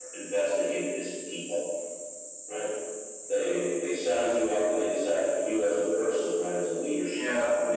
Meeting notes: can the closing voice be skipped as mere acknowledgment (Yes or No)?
Yes